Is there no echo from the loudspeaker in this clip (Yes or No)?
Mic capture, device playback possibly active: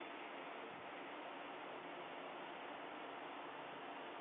Yes